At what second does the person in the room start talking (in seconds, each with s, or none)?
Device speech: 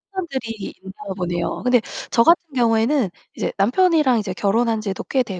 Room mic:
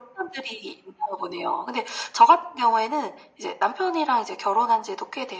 none